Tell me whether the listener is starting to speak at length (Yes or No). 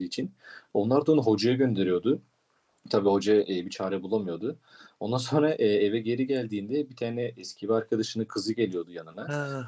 Yes